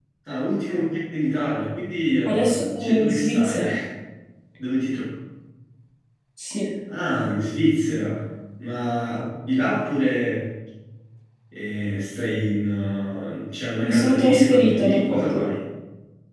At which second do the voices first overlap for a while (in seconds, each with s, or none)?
2.2 s